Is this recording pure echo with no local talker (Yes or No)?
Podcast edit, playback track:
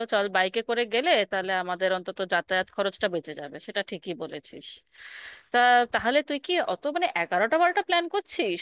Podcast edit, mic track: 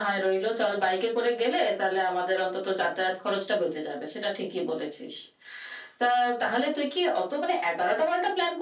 Yes